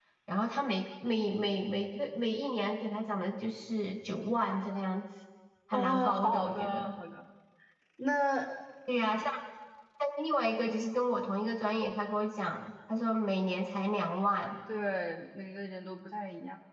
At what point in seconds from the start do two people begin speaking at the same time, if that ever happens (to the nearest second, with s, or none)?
6 s